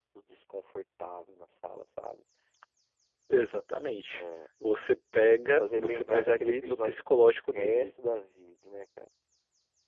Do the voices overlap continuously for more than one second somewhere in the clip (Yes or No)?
Yes